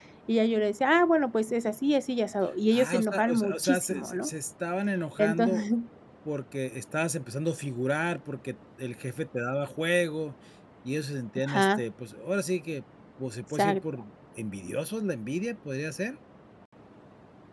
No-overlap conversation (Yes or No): No